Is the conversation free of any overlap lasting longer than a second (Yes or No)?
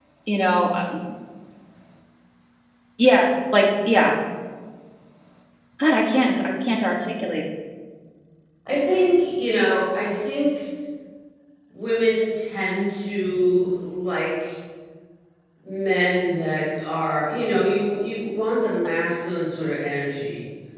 Yes